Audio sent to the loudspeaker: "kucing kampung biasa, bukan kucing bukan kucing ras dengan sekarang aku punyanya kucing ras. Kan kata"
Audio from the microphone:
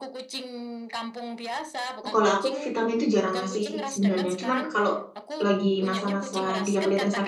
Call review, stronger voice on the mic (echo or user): user